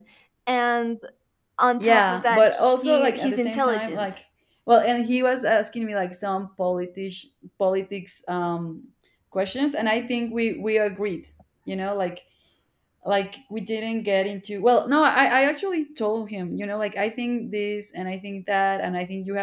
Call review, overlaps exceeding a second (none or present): present